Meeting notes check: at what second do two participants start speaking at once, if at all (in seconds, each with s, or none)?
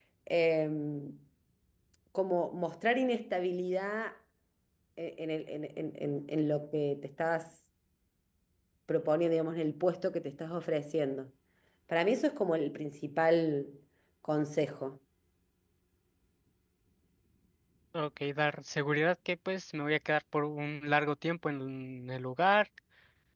none